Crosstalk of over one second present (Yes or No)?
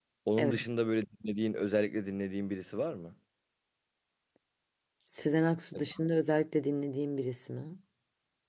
No